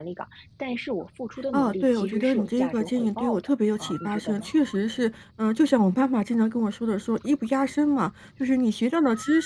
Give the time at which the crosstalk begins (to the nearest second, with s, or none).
2 s